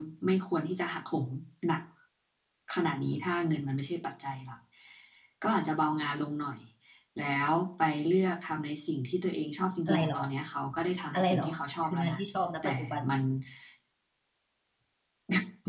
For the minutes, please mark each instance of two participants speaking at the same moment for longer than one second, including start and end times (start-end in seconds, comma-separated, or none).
none